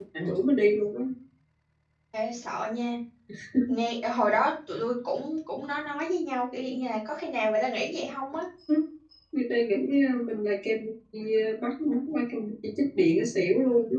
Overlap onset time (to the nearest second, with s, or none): none